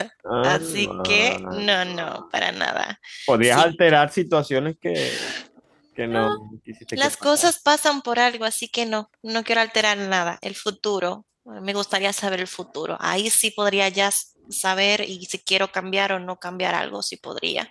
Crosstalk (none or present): present